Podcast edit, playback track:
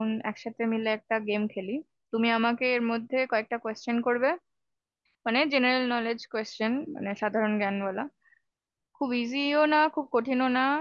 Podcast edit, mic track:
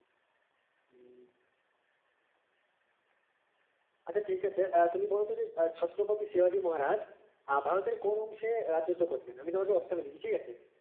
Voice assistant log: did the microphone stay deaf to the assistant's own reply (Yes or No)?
Yes